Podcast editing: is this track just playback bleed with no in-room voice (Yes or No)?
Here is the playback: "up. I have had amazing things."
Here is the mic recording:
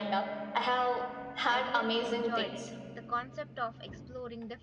No